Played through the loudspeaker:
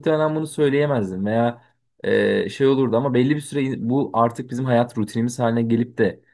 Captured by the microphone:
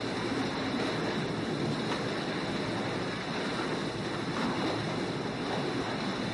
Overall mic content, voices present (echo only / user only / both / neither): neither